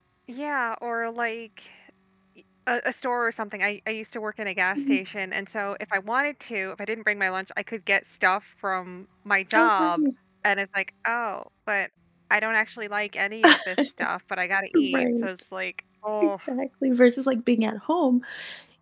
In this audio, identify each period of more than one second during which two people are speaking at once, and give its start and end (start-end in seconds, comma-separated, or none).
none